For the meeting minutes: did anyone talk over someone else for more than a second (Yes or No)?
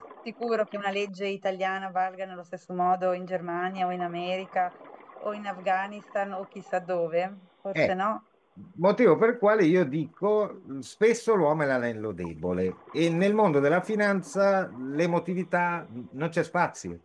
No